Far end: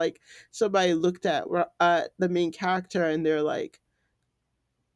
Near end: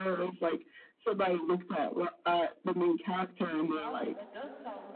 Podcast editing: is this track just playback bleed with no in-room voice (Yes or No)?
No